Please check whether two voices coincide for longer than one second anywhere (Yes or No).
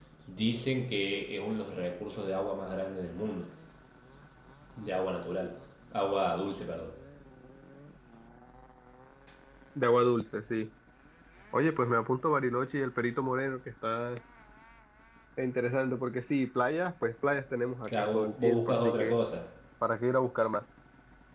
Yes